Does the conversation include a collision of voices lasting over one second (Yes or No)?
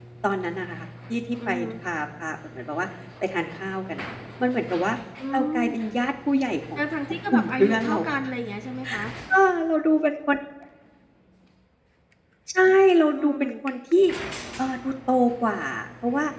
Yes